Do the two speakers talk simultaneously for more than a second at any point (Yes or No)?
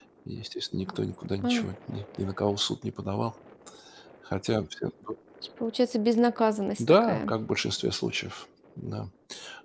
No